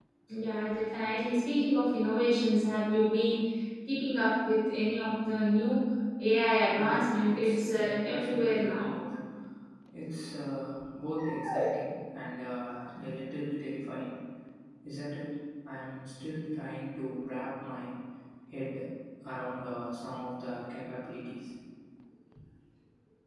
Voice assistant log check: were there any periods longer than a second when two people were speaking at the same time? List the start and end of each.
6.7-8.9

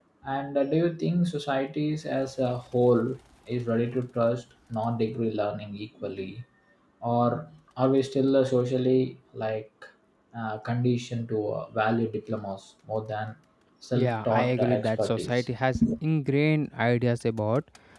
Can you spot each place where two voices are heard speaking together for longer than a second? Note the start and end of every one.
13.9-15.4

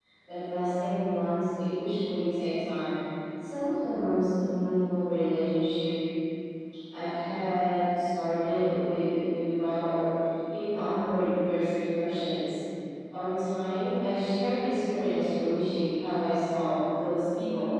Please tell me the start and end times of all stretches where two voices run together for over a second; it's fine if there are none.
none

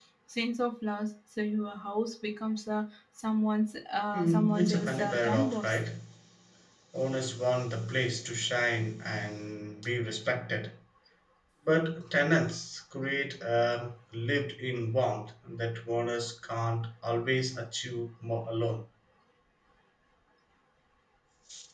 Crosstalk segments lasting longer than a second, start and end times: 4.1-5.8

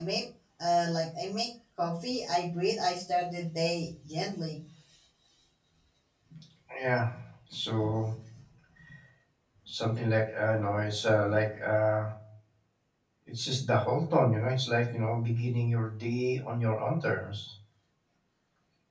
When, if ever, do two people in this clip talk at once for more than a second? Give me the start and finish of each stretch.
none

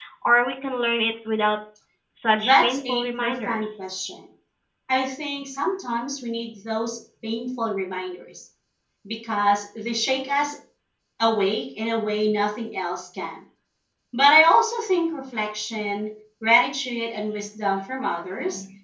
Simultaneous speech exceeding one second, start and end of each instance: 2.3-3.6

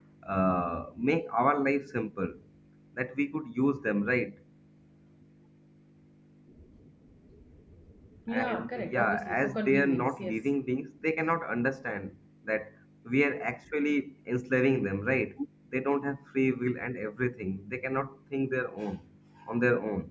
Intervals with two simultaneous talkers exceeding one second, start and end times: 8.3-10.4

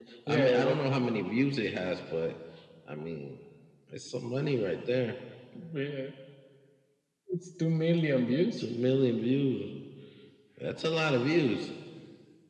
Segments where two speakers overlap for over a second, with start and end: none

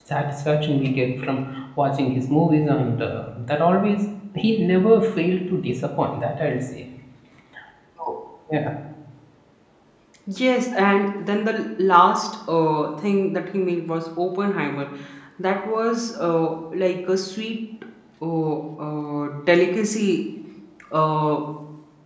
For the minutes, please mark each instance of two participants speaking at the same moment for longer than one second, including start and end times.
none

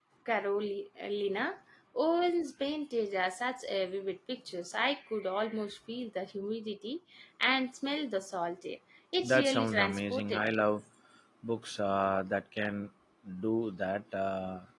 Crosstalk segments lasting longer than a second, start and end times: 9.2-10.6

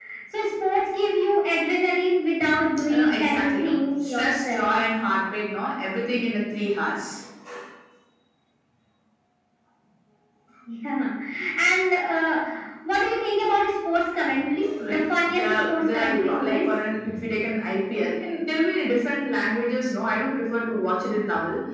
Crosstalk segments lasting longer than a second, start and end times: 2.9-4.7, 14.9-16.7

